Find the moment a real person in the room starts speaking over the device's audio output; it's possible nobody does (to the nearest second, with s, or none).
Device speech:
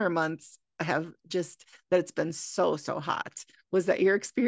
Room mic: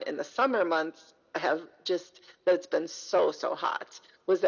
none